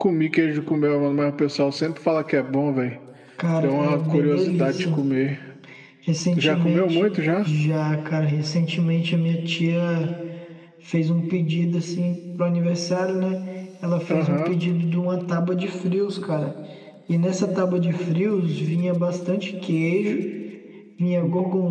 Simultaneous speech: Yes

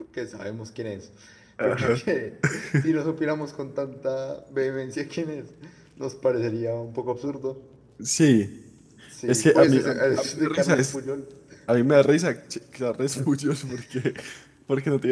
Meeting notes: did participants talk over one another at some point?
Yes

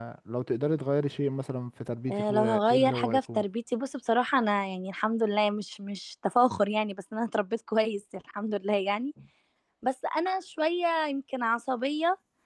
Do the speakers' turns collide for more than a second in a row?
Yes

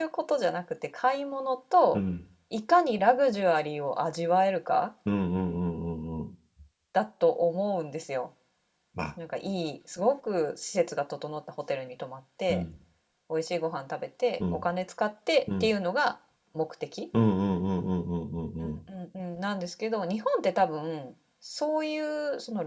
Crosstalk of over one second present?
No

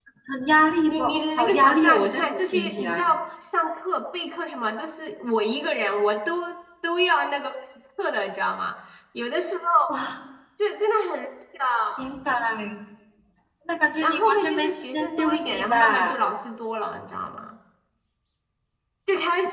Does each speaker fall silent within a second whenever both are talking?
No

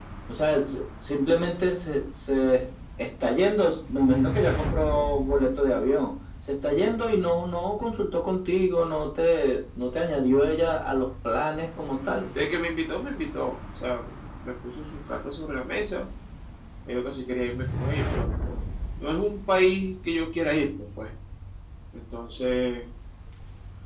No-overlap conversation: Yes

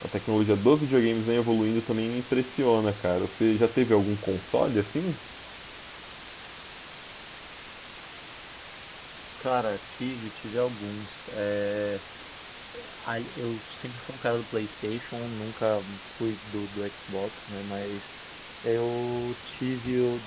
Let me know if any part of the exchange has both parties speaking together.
No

